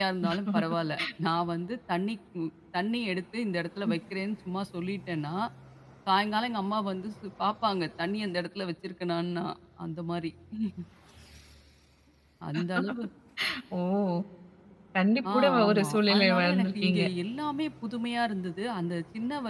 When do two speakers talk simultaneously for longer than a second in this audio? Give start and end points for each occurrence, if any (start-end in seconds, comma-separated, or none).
15.3-17.0